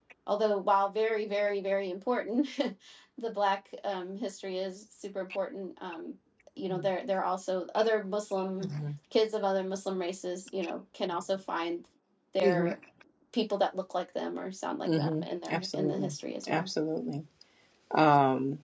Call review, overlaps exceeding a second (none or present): present